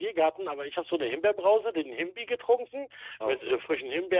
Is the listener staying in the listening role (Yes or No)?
Yes